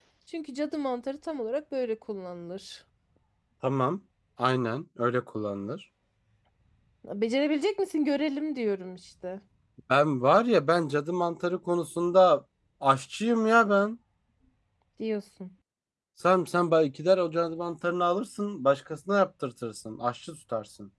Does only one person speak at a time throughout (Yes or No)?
Yes